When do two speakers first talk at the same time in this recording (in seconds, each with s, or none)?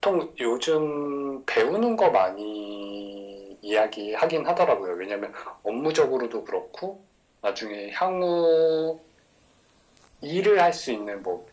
none